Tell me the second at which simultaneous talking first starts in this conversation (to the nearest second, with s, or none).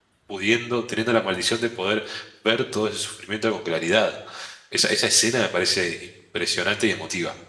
none